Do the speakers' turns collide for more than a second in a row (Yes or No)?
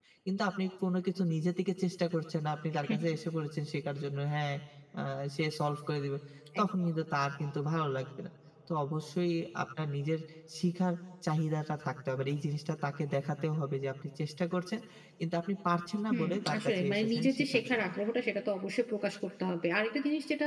Yes